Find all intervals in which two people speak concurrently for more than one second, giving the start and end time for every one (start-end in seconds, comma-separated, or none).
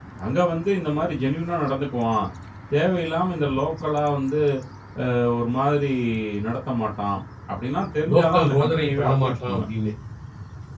8.1-9.6